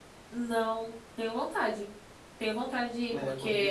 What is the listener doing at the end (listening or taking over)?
taking over